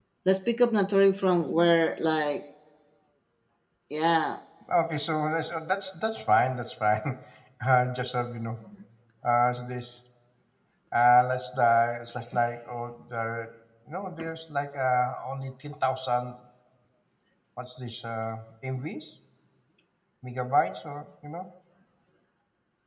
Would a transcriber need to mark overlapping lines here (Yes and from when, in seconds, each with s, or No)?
No